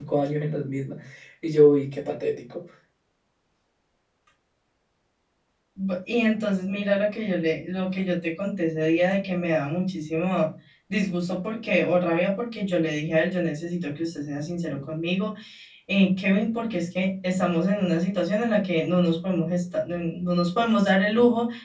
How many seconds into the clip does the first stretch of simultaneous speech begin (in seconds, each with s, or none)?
none